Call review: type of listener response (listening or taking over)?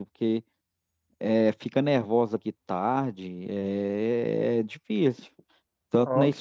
listening